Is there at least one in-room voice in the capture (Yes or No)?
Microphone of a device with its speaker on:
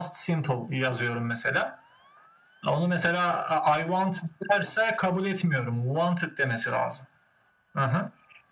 No